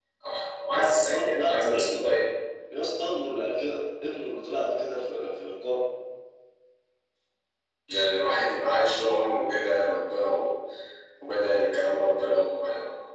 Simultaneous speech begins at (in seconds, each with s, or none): 0.7 s